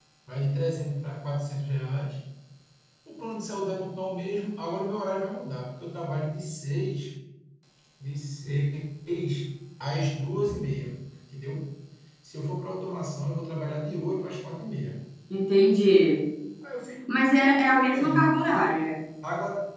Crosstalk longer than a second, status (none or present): present